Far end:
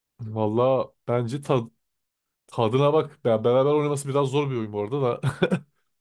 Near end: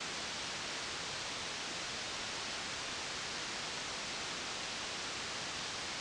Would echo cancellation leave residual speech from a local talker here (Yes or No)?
No